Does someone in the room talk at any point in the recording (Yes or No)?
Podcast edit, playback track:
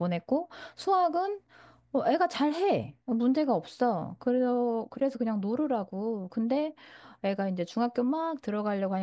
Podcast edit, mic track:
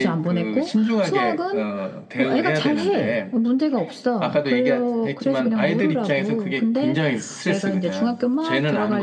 Yes